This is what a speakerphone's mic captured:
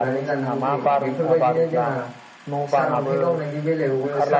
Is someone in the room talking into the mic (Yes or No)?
Yes